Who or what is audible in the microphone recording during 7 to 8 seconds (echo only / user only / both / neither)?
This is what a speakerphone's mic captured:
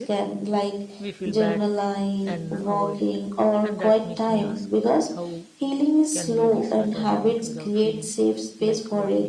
both